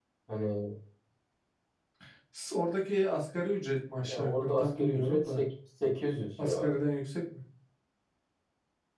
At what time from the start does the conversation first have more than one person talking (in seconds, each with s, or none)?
4.1 s